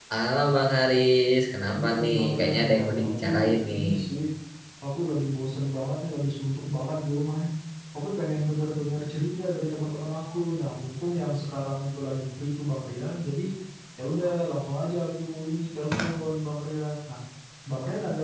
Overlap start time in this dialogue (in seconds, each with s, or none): 1.7 s